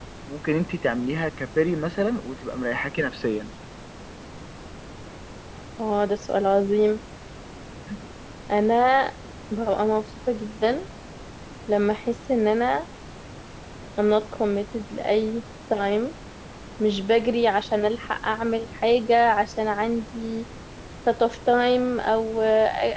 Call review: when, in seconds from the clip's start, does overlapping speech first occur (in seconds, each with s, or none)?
none